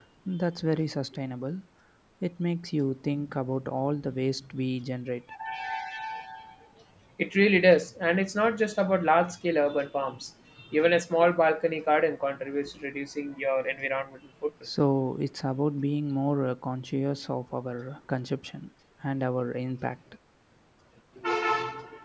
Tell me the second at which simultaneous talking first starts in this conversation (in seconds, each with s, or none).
none